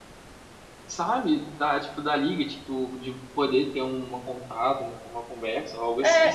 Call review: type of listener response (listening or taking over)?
taking over